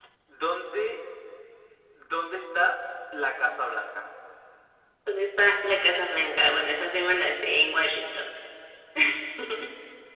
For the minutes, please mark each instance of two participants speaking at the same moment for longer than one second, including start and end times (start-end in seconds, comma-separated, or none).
none